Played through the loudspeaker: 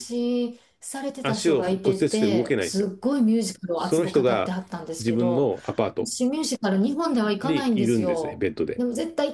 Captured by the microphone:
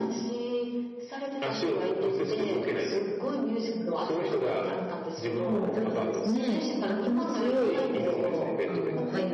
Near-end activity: present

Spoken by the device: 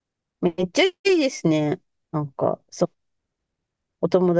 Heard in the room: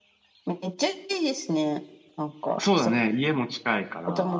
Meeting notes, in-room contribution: present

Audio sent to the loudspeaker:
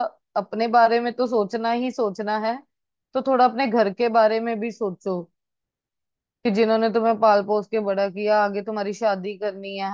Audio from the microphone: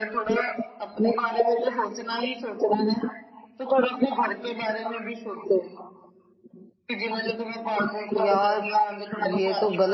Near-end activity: present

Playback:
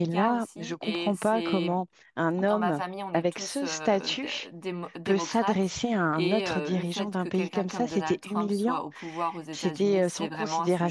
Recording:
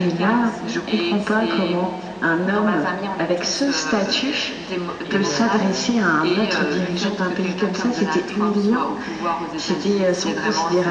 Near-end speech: present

